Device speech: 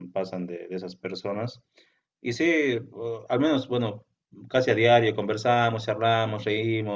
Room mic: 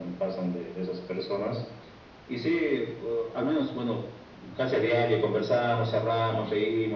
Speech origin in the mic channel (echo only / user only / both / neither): echo only